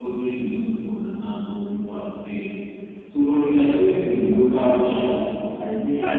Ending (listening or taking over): taking over